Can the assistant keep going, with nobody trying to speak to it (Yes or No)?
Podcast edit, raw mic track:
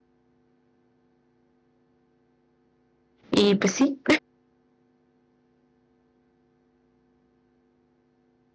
No